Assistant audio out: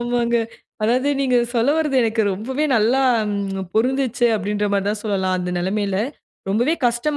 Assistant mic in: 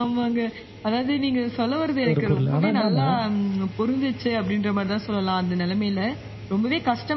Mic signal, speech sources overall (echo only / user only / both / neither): both